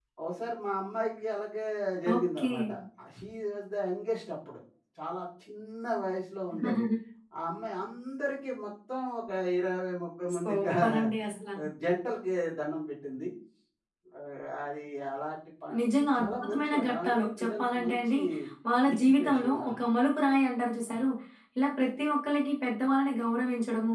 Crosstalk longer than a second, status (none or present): present